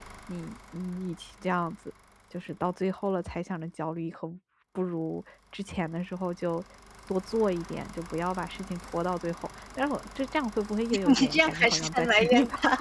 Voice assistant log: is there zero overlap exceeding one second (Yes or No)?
No